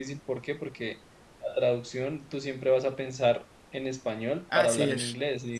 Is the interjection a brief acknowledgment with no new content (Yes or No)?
Yes